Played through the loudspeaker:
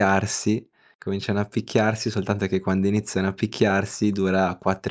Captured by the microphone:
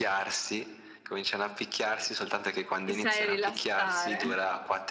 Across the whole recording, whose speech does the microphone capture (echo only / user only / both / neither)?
both